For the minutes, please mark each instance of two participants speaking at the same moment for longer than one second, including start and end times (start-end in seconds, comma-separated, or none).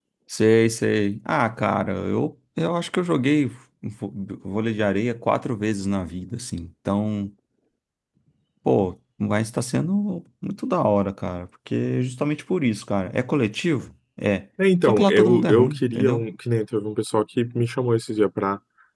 14.8-16.2